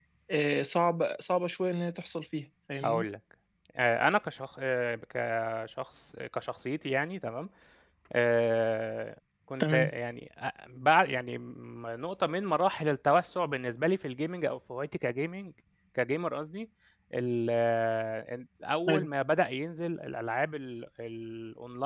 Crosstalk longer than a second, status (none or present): none